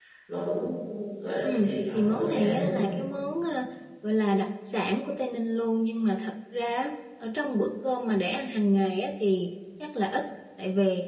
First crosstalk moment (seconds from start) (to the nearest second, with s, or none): 1 s